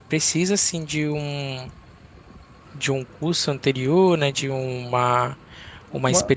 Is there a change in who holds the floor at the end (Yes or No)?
No